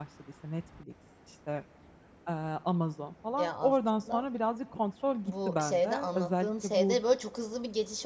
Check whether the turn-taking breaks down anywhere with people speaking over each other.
Yes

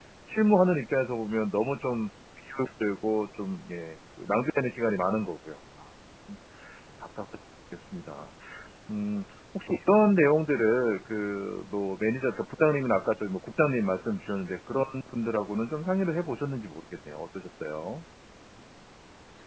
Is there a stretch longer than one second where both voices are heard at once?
No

